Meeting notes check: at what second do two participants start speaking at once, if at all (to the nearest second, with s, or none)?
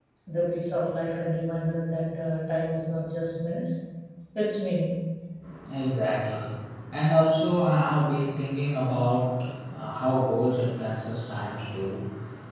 none